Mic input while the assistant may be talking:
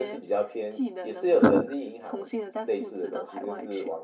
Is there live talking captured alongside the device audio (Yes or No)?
Yes